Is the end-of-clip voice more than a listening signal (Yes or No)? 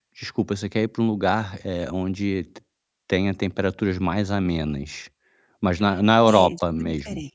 Yes